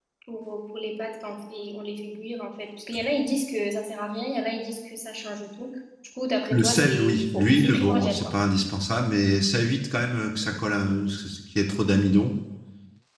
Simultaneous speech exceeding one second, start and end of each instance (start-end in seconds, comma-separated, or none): 6.5-8.3